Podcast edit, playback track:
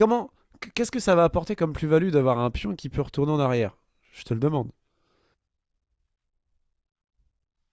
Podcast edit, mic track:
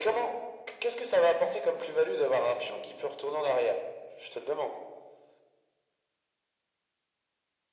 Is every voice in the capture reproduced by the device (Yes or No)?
Yes